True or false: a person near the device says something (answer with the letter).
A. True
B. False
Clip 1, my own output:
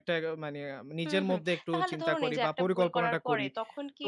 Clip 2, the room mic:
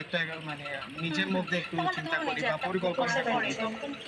A